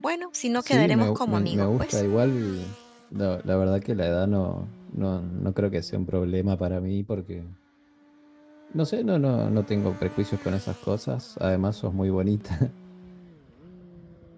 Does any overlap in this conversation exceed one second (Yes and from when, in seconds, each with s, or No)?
Yes, from 0.6 s